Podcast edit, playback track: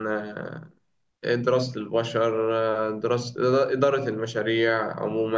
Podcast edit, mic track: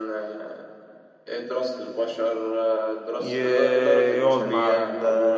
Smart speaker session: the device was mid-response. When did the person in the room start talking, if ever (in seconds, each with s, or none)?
3.2 s